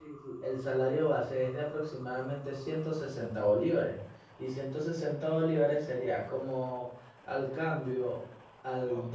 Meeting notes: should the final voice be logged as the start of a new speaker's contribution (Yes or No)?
No